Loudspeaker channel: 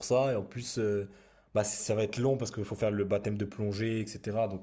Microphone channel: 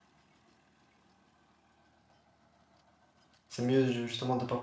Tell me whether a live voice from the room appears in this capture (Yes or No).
Yes